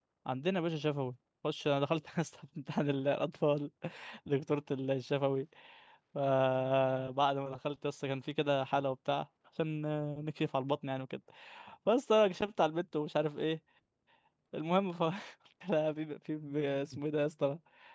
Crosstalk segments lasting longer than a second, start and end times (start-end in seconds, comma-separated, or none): none